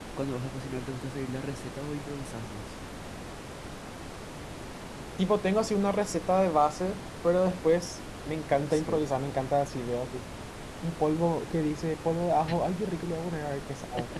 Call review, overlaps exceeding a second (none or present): none